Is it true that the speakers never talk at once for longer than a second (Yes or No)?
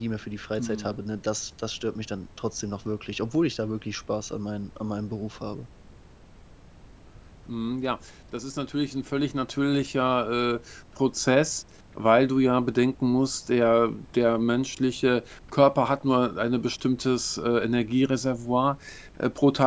Yes